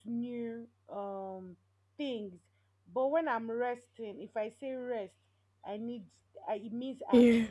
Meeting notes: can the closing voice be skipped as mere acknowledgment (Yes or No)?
Yes